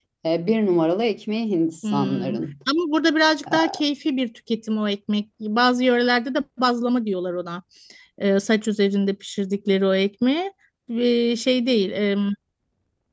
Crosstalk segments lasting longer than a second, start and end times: none

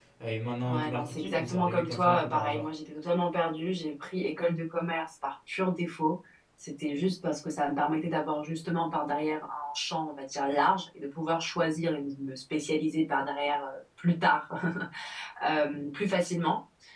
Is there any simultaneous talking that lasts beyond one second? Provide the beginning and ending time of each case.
0.7-2.7

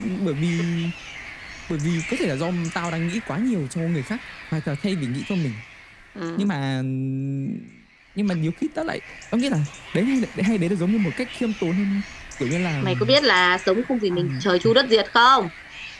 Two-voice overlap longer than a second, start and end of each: none

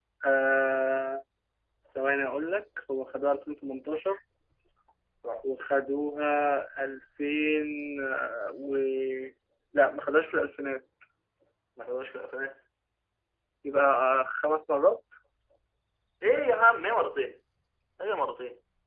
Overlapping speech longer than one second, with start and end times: none

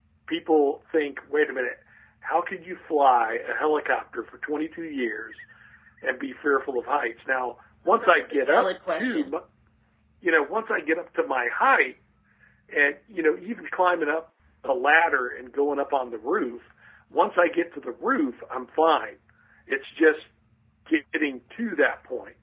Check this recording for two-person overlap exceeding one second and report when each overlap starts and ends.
8.0-9.3

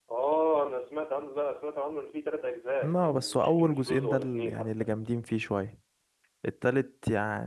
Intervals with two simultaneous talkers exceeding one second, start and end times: 2.8-4.7

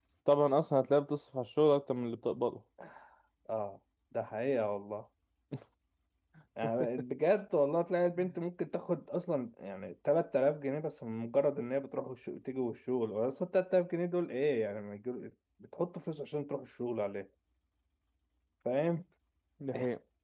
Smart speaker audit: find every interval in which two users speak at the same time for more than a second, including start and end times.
none

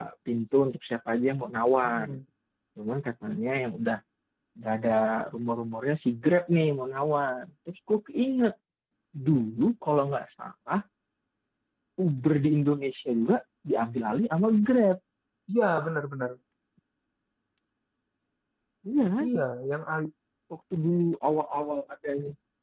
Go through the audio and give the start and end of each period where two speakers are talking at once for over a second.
none

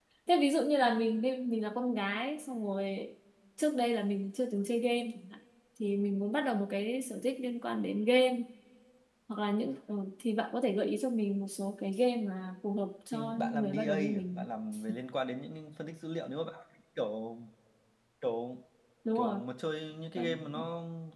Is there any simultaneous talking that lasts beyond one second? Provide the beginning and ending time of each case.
13.1-14.4

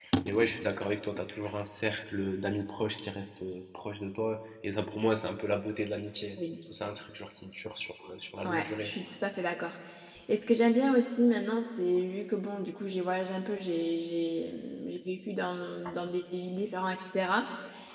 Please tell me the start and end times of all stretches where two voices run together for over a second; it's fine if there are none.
none

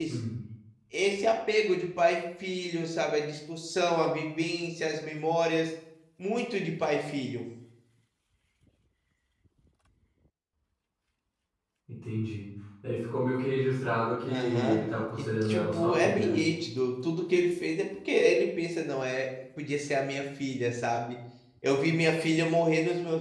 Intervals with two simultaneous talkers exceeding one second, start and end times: 15.2-16.4

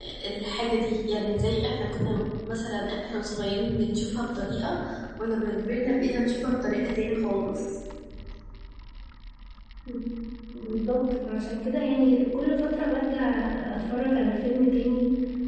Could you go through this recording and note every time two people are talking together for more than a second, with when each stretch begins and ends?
none

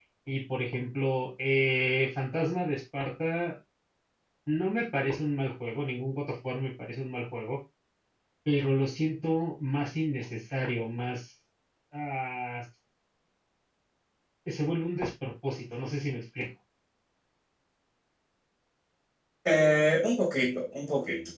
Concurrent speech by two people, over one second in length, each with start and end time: none

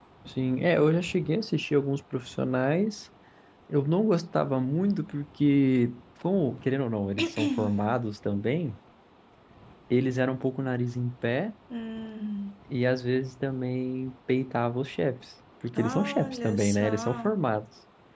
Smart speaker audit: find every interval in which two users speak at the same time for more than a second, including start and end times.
15.8-17.3

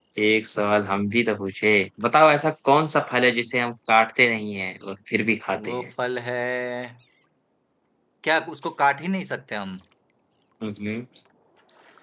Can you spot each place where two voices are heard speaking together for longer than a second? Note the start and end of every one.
none

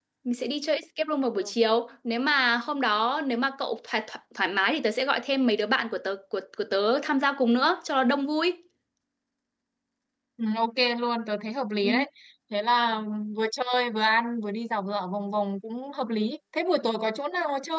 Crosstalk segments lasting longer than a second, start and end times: none

